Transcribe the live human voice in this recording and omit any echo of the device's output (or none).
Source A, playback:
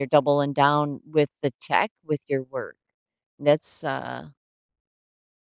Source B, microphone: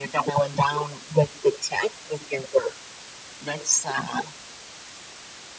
none